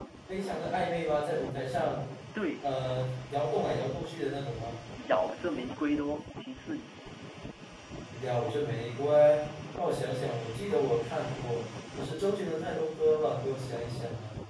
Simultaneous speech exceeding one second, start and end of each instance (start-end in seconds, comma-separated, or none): none